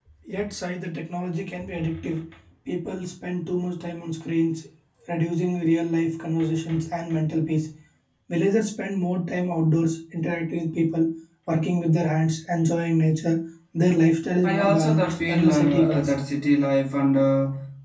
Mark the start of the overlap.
14 s

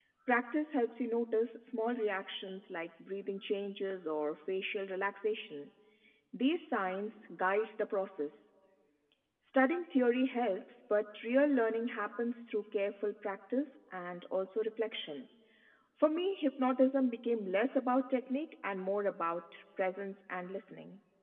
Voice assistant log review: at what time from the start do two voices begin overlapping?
none

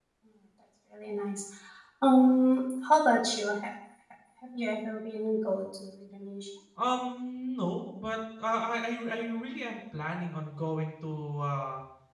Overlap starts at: none

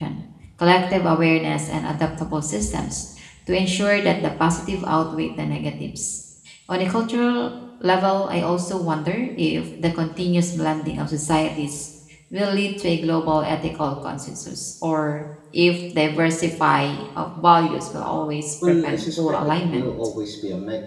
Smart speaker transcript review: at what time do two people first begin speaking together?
19 s

